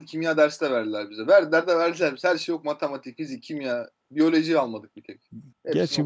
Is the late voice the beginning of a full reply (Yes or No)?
Yes